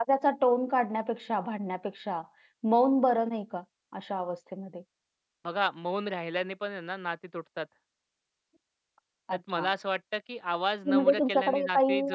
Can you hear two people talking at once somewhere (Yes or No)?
Yes